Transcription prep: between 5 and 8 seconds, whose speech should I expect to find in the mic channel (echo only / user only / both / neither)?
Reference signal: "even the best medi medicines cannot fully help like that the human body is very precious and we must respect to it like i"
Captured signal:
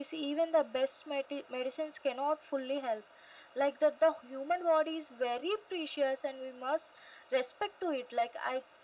echo only